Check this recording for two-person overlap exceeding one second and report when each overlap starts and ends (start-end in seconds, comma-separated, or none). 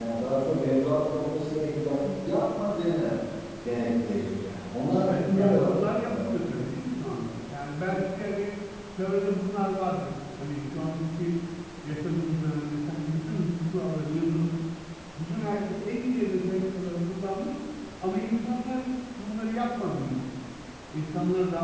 5.1-6.4